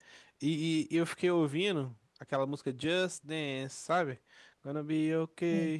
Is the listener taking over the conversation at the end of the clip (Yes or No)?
No